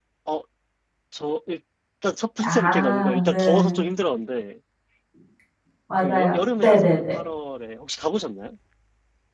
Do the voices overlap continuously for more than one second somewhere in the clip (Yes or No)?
Yes